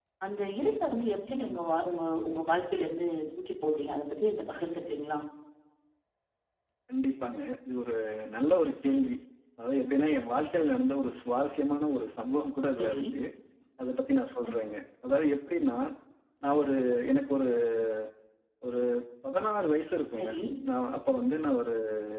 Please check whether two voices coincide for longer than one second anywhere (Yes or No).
No